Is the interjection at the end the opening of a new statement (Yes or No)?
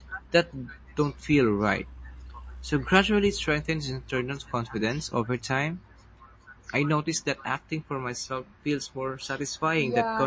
Yes